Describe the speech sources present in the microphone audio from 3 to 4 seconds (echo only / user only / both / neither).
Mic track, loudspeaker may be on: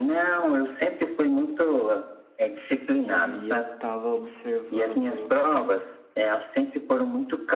both